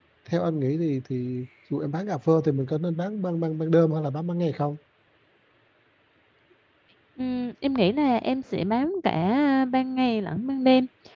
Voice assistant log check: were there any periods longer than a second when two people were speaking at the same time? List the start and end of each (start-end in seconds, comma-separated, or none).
none